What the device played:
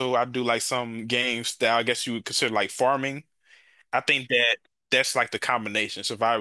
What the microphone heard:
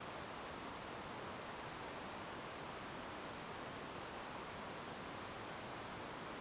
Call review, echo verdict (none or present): none